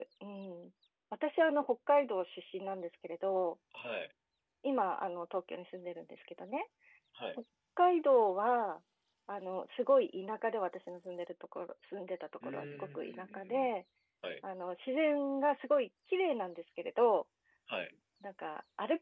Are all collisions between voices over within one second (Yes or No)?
No